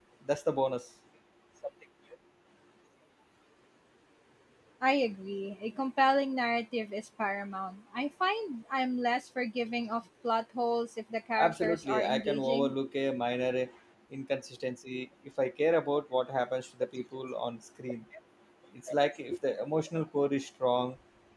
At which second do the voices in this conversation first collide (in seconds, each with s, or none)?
11.4 s